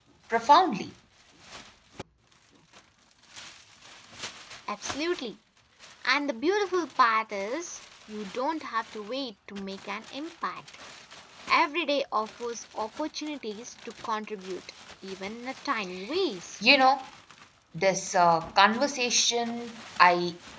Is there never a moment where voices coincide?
Yes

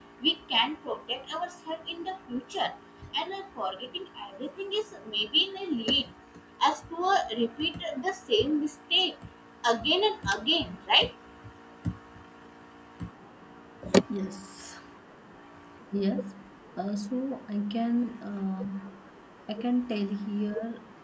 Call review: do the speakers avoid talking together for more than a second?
Yes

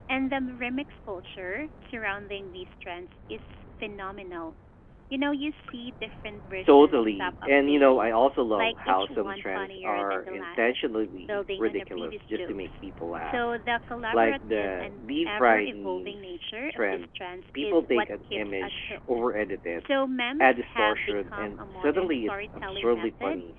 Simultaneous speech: Yes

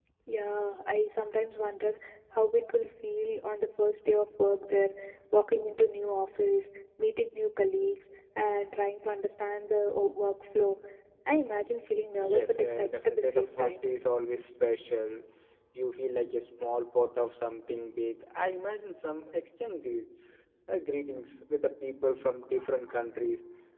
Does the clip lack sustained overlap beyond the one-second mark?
No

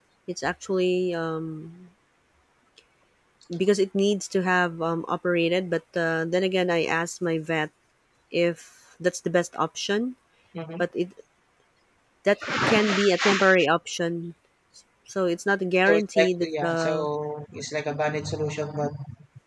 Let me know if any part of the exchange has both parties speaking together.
Yes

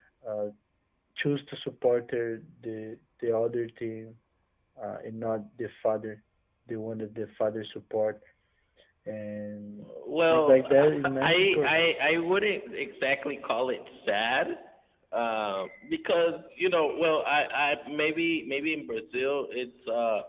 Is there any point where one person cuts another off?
Yes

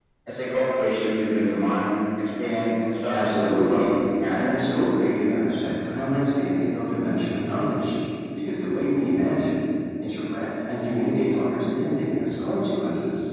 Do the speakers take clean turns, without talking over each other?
No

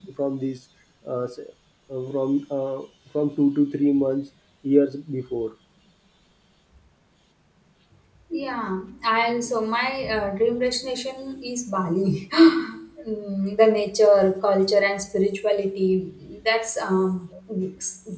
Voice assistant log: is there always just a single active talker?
Yes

